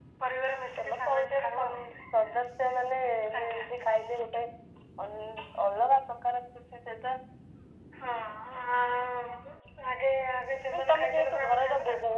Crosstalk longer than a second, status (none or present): present